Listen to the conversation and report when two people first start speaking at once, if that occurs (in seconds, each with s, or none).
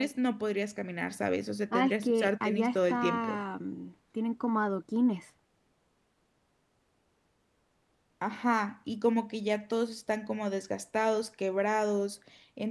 1.7 s